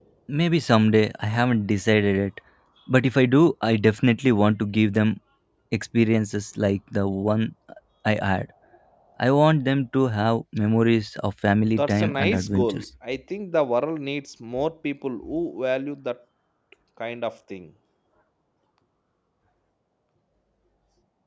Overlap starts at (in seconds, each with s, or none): 11.6 s